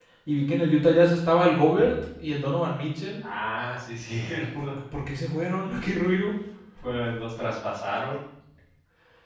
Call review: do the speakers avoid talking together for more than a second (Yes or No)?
Yes